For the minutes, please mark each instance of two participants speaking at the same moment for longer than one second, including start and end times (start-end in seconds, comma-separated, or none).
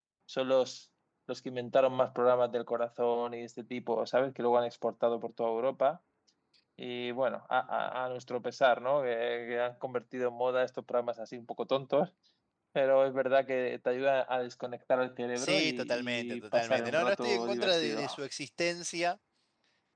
15.4-18.1